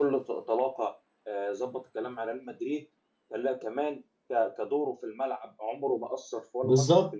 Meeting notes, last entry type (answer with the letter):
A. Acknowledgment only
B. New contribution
B